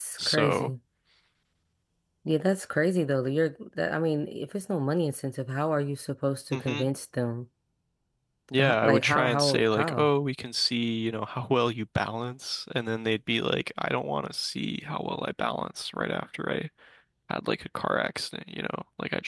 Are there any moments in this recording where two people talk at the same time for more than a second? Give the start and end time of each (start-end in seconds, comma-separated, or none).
8.6-10.1